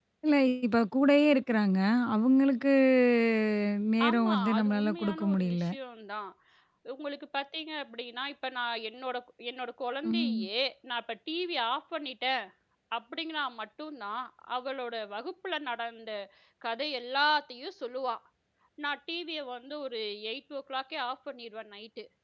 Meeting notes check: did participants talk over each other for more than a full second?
Yes, from 4.1 s

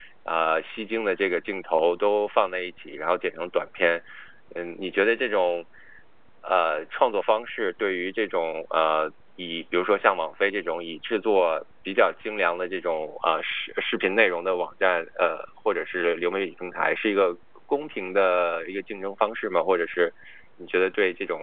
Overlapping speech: No

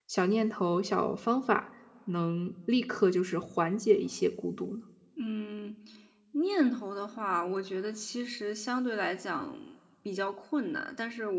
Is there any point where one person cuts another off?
No

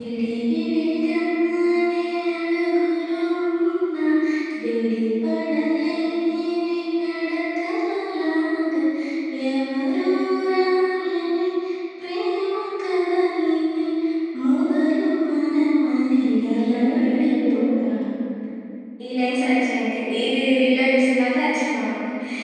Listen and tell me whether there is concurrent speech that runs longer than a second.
Yes, from 16.2 s

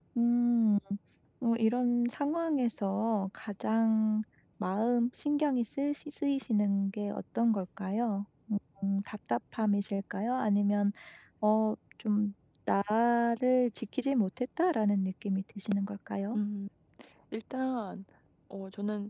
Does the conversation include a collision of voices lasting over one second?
No

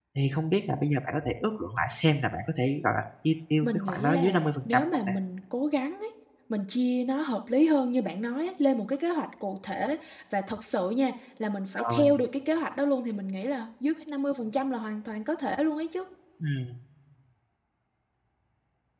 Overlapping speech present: Yes, from 3.6 s

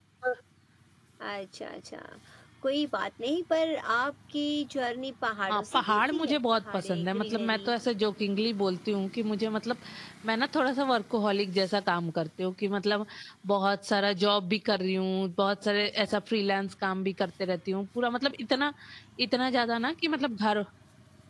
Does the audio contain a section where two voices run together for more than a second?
Yes, from 5.5 s

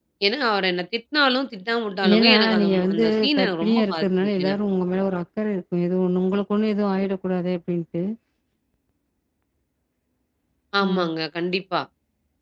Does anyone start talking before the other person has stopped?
Yes, from 2.1 s

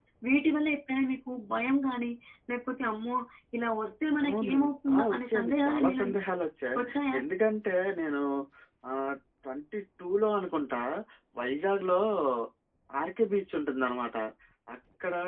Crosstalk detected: Yes, from 4.3 s

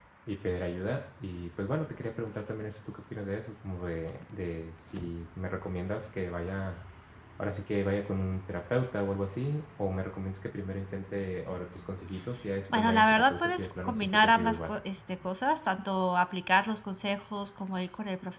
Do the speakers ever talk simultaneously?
Yes, from 12.7 s

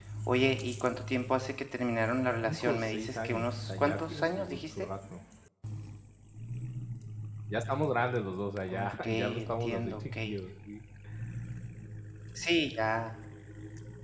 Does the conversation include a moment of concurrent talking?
Yes, from 2.4 s

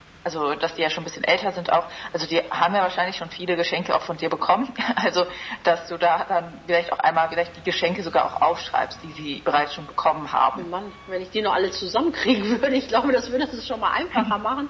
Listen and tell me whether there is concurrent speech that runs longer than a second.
No

